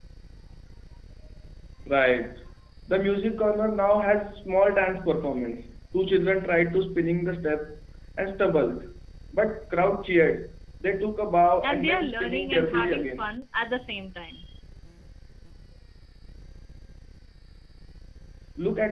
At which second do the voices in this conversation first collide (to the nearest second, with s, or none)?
12 s